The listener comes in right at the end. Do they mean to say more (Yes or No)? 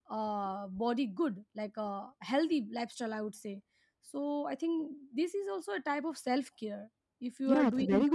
Yes